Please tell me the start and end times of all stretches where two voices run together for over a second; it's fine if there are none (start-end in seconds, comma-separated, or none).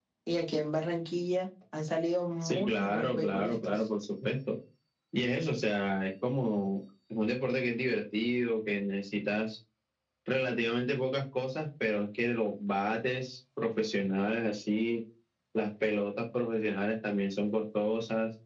2.4-3.8